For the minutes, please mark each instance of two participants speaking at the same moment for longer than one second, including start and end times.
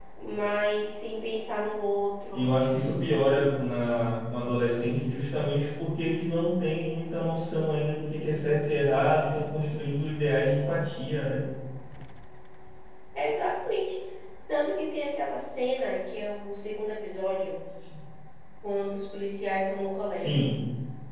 none

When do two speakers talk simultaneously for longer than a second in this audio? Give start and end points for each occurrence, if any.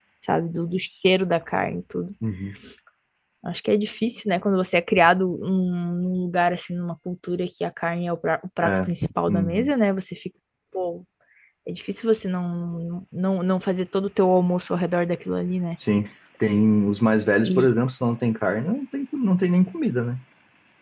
none

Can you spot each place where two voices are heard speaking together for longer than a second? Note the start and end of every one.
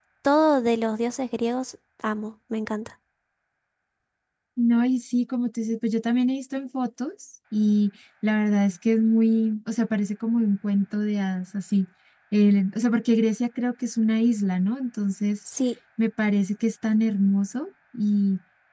none

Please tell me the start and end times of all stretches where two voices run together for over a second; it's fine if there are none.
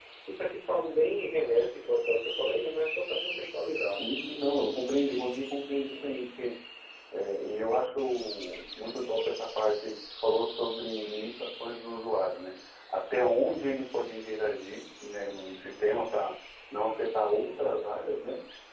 none

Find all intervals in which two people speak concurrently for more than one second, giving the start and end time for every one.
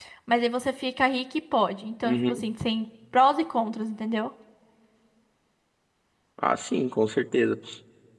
none

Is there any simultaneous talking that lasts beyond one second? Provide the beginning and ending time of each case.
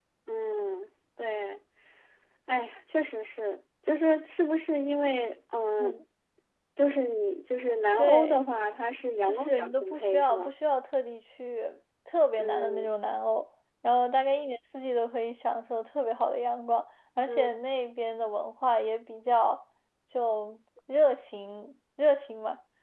9.2-10.5

